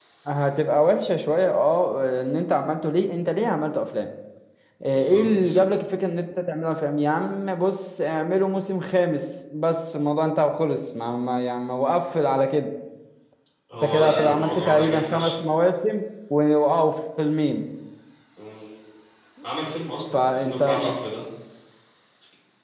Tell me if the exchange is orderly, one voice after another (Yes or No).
No